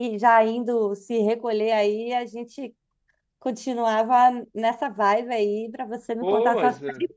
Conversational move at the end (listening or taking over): taking over